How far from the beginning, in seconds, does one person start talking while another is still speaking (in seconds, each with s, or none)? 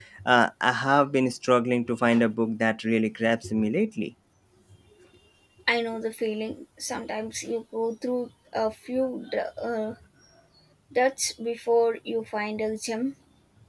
none